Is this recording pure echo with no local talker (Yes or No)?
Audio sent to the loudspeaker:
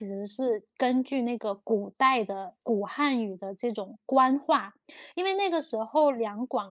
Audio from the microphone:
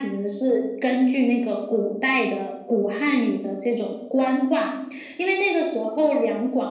Yes